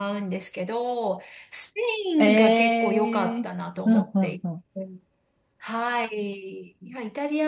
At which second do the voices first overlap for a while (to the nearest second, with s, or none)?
2 s